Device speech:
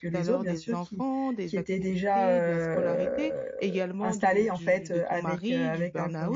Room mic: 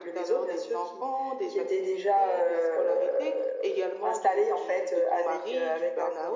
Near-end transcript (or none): none